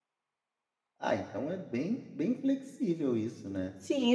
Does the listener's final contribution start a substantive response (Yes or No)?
Yes